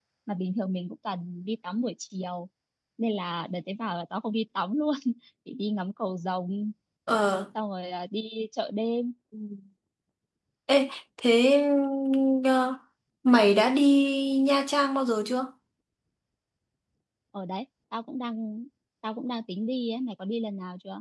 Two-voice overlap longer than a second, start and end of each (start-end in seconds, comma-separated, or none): none